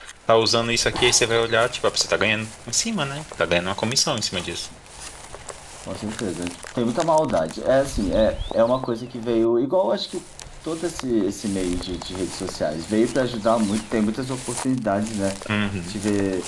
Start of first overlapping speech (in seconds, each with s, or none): none